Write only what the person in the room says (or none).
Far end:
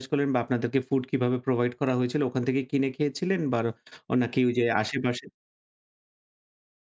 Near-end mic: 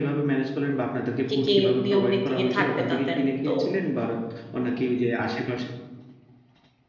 কি, কি নিয়ম নীতি থাকবে তাদের। তো